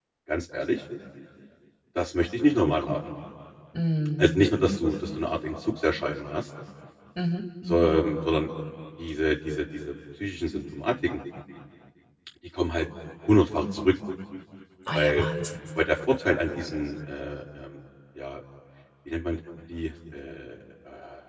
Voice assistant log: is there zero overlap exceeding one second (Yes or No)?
Yes